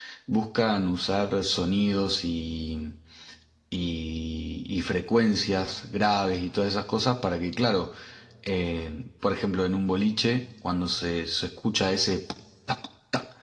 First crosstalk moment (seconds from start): none

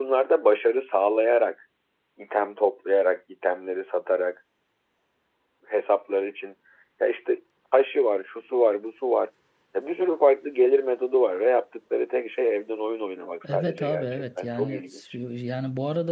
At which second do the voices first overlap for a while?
13.4 s

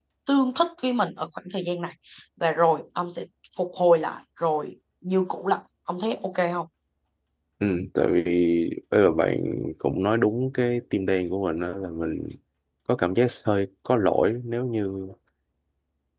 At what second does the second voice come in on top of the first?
none

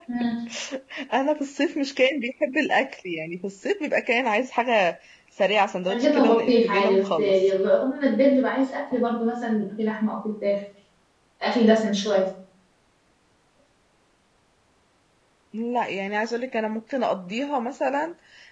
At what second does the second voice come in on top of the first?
5.9 s

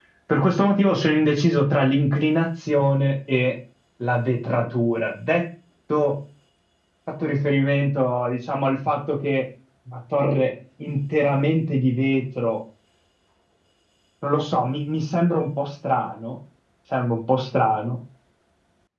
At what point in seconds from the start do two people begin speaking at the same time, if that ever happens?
none

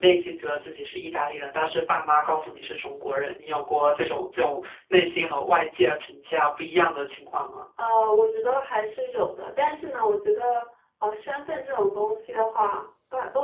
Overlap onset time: none

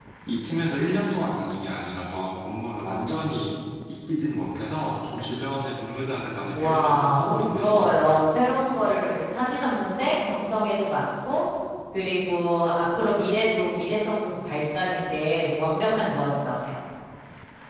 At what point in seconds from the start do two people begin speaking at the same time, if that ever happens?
6.5 s

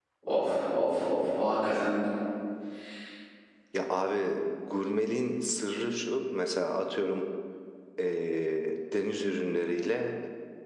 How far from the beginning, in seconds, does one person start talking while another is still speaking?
none

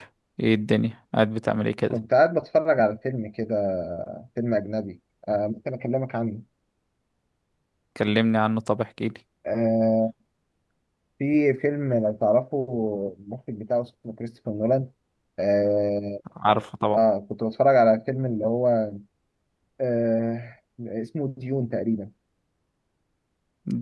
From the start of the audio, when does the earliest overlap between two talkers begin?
none

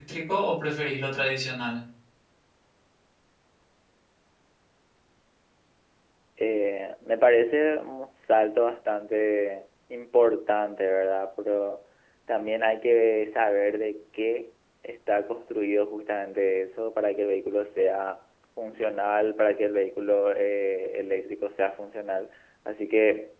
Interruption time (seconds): none

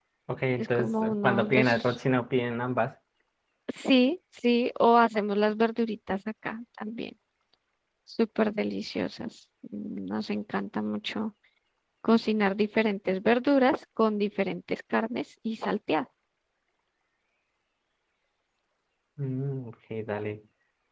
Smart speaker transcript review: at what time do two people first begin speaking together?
0.6 s

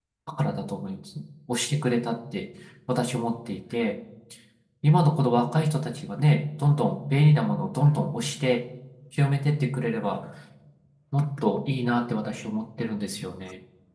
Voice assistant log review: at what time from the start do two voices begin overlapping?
none

